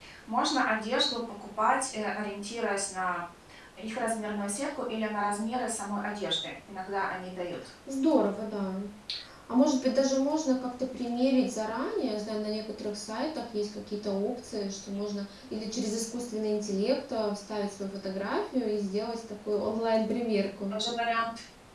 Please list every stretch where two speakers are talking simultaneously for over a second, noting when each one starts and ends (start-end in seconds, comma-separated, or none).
none